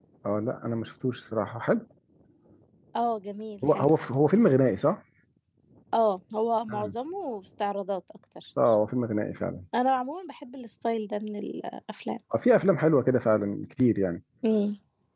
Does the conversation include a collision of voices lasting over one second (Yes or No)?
No